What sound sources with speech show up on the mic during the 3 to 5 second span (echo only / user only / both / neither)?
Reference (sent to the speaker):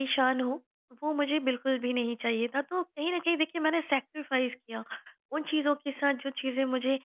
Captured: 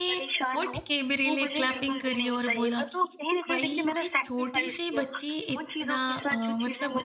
both